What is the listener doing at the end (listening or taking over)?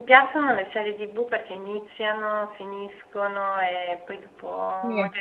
listening